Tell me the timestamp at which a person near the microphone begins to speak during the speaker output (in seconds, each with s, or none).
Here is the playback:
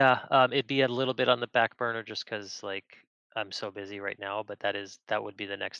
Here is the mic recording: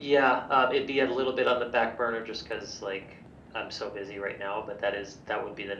none